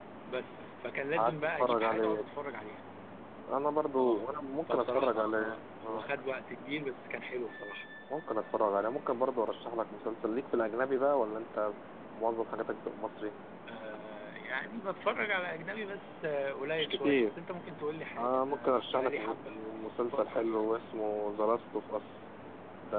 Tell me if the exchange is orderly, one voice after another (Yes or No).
No